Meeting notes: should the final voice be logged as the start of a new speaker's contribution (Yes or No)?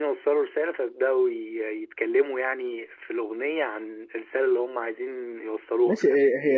Yes